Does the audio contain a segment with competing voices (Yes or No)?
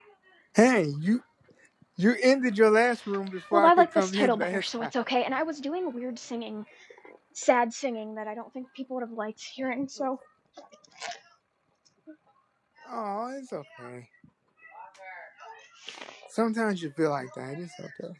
Yes